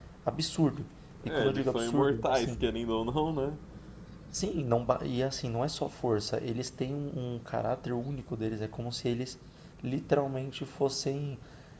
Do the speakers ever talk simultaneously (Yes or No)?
Yes